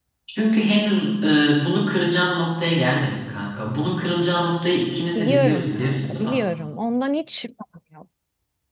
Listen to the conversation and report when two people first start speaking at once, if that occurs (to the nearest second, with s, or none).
5 s